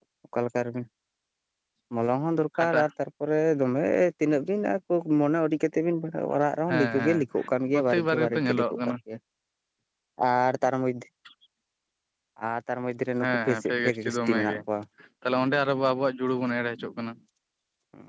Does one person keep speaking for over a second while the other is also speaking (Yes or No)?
Yes